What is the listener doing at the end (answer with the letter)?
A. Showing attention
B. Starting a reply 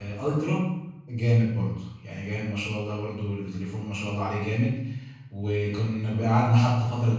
A